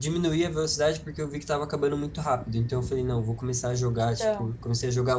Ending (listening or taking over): listening